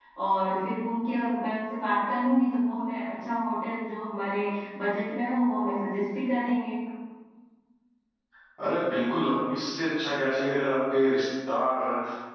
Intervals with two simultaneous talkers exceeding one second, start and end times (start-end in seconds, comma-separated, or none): none